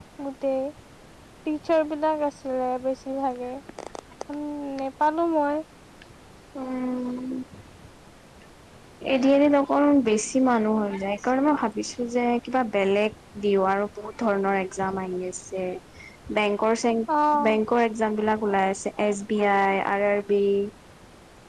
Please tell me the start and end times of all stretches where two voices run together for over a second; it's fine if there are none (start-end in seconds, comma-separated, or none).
none